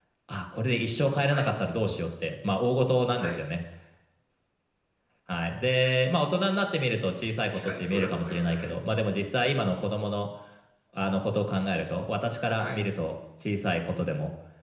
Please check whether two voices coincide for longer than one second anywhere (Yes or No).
Yes